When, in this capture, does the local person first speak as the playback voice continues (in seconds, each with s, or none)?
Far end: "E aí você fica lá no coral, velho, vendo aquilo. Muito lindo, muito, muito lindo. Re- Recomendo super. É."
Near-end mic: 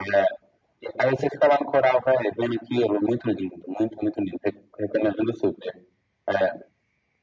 none